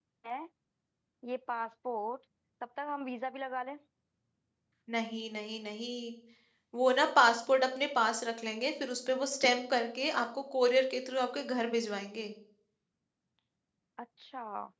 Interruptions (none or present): none